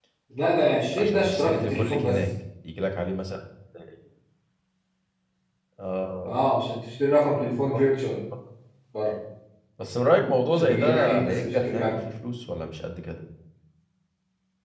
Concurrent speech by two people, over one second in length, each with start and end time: 1.0-2.2, 10.5-12.0

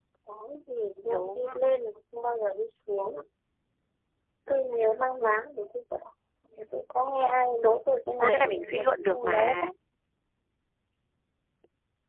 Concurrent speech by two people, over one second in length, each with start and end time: 8.2-9.7

